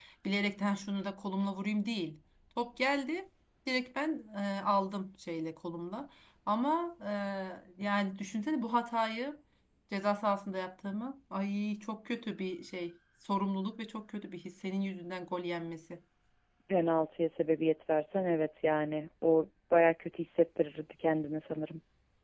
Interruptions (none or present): none